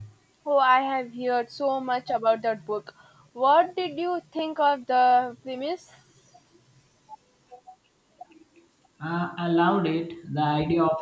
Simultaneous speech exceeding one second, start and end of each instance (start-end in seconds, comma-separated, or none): none